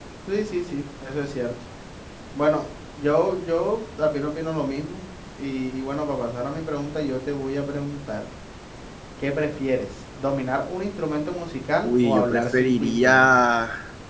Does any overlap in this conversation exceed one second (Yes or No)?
Yes